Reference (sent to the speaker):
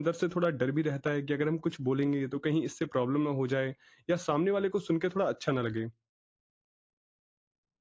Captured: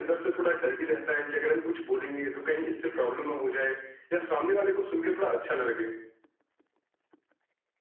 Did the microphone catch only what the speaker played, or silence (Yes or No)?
Yes